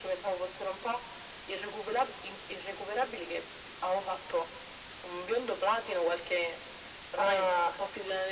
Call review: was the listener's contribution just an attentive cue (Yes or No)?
Yes